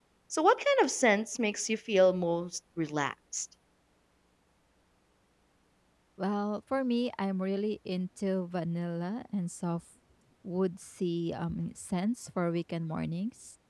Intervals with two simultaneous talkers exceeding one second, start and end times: none

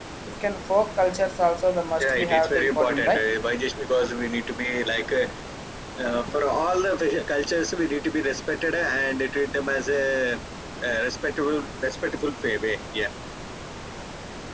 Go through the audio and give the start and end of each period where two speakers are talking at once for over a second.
2.0-3.2

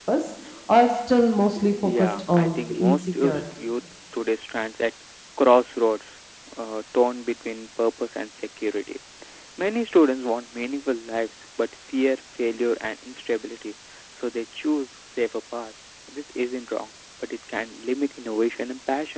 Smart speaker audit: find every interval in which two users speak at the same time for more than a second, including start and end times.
1.8-3.4

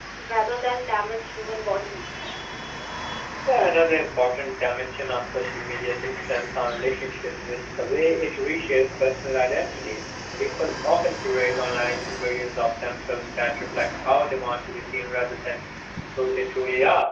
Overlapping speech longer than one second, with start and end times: none

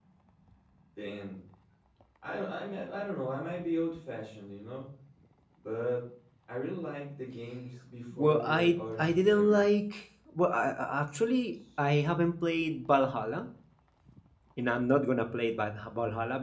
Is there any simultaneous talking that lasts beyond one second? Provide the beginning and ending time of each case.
8.2-9.7

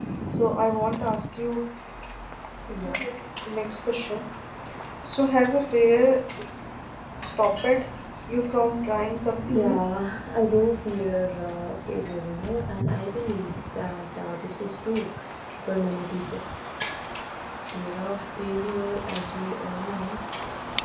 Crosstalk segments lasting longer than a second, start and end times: none

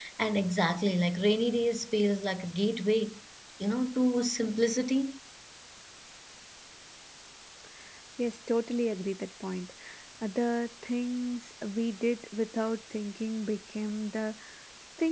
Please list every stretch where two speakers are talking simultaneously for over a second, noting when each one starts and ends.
none

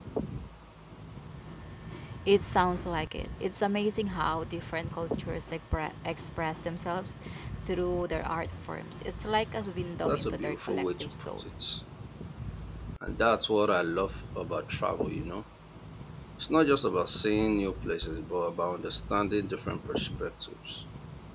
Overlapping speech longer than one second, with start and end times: 10.1-11.4

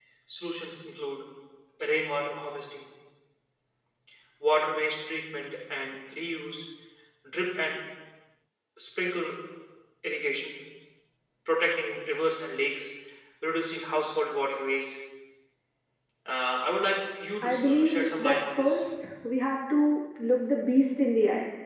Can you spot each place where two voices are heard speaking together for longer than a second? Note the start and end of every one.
17.4-18.8

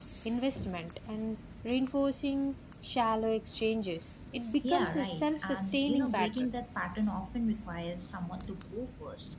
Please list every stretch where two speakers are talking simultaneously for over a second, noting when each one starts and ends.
4.7-6.5

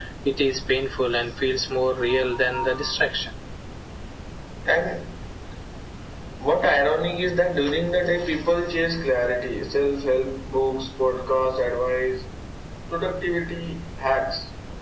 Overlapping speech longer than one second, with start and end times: none

